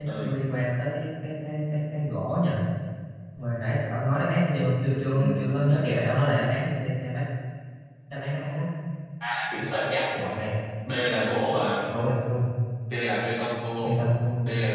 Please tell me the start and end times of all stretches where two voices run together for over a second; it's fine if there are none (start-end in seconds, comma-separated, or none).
none